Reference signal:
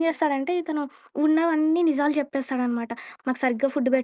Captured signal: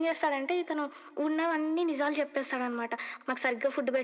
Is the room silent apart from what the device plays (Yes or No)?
Yes